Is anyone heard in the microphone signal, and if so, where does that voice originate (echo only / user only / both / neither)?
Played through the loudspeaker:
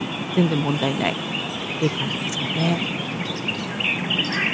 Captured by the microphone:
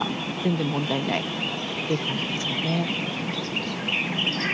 echo only